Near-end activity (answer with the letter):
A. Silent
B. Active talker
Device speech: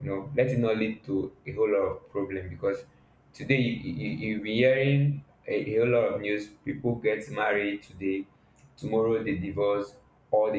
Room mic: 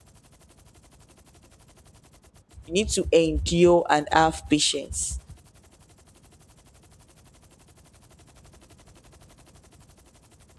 B